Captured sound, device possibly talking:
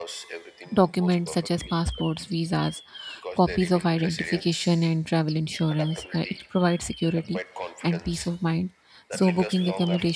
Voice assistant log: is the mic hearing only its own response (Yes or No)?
No